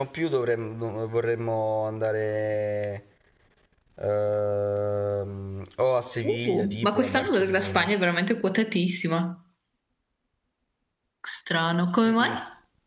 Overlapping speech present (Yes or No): Yes